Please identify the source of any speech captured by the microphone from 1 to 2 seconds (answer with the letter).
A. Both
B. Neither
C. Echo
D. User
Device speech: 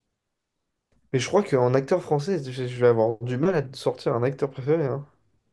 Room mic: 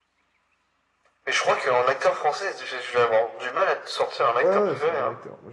C